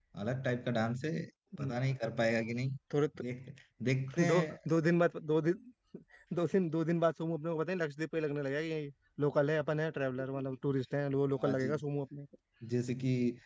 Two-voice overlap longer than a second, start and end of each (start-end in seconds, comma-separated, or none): none